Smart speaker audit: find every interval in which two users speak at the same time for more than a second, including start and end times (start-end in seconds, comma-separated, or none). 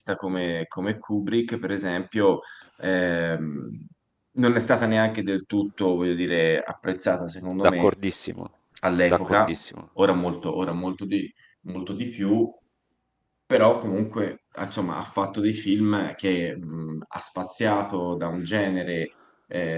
none